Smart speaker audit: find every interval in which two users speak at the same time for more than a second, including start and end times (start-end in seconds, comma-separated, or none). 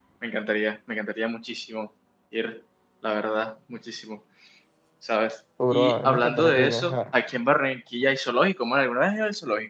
5.7-7.0